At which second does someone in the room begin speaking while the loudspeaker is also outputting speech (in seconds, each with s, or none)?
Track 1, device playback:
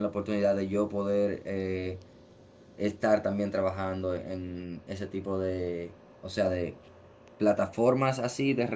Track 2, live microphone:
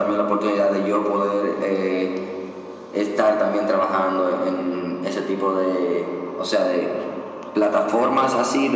none